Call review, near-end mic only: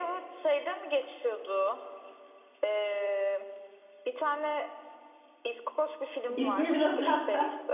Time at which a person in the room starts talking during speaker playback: 6.3 s

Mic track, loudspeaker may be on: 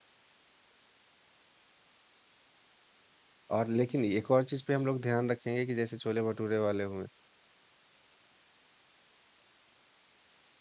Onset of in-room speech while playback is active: 3.5 s

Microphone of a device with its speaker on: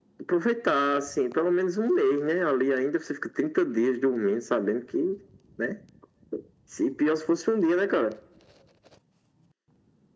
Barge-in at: none

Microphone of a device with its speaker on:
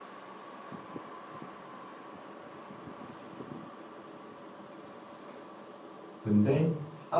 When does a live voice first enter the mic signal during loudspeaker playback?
6.2 s

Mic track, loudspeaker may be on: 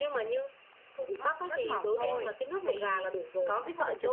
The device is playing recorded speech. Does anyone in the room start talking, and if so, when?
1.2 s

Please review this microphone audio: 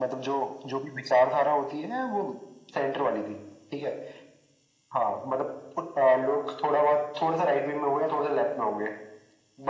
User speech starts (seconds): none

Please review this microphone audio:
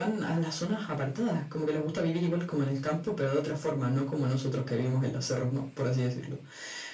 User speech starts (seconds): none

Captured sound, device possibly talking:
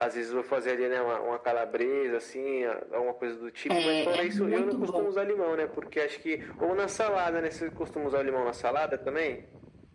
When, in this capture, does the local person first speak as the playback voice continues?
3.7 s

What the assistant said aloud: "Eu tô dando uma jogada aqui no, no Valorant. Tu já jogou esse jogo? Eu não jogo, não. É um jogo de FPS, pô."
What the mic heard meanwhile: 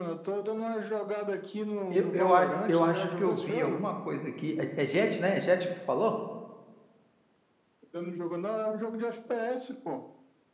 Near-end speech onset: 1.9 s

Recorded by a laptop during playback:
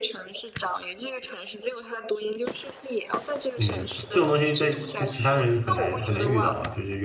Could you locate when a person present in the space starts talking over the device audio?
3.5 s

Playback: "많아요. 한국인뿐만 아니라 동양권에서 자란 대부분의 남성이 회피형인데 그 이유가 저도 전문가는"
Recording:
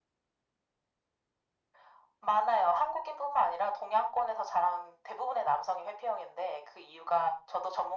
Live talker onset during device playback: none

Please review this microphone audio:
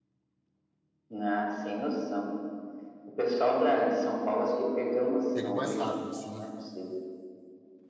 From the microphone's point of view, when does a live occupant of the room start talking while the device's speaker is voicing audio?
5.3 s

